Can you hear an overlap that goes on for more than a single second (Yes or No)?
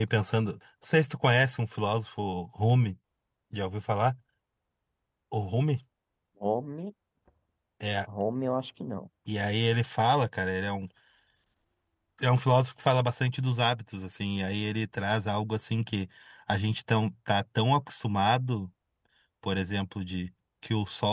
No